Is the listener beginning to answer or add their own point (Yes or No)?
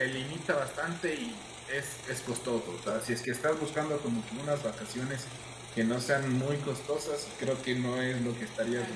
Yes